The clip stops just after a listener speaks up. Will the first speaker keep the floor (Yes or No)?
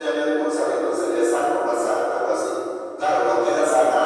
Yes